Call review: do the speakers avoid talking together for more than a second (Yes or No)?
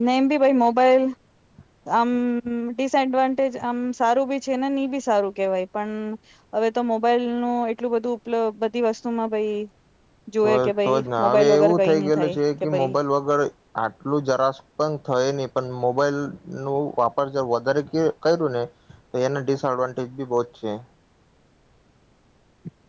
No